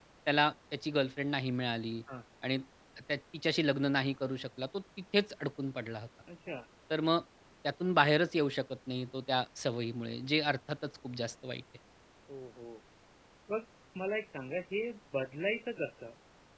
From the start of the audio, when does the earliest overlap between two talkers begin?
none

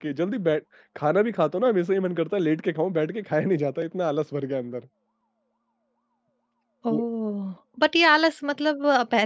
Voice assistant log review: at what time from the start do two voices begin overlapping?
none

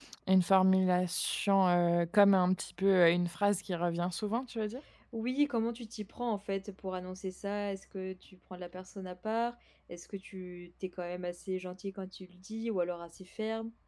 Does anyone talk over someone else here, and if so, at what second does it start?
none

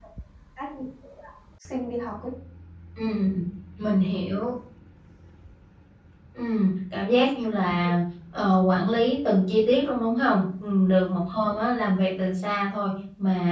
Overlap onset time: none

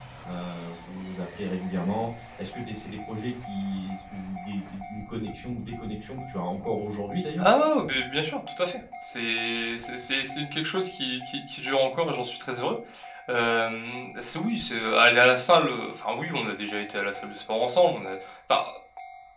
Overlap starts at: none

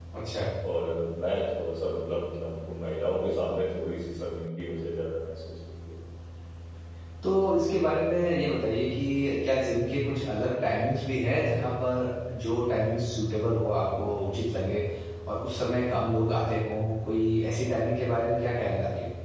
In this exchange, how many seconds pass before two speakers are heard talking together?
none

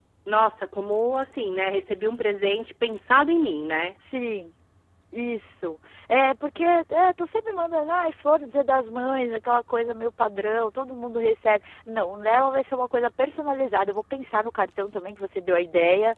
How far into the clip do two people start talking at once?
none

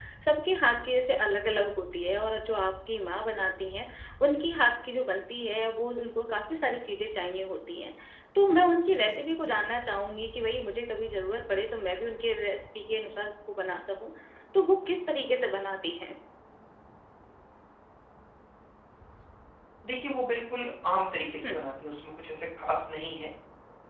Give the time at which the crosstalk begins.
none

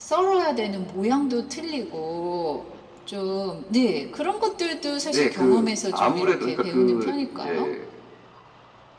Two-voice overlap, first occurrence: 5 s

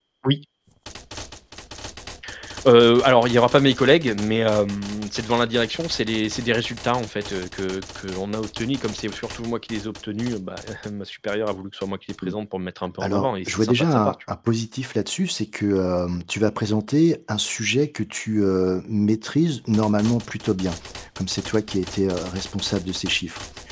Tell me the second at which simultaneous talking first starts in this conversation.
13 s

